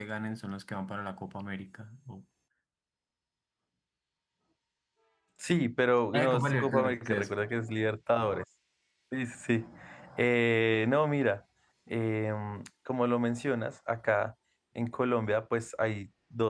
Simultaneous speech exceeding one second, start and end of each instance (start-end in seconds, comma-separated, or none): 6.1-7.3